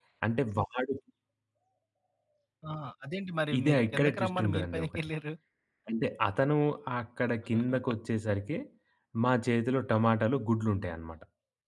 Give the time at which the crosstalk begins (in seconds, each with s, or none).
3.6 s